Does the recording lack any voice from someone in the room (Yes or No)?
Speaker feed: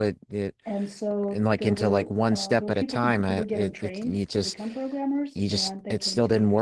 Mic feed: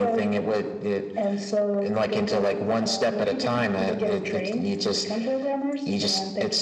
Yes